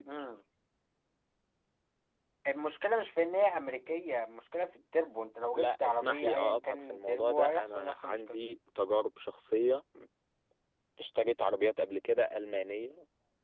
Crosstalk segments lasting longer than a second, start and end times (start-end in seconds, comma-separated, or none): 5.5-8.4